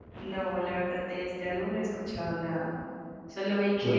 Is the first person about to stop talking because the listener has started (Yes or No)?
No